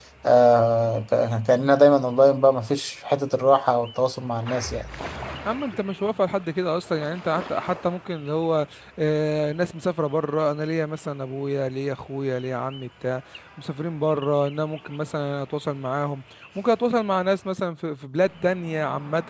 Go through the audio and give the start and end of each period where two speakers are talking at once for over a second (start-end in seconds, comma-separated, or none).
none